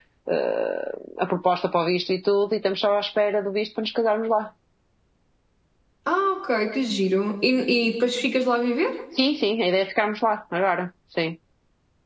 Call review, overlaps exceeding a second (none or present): none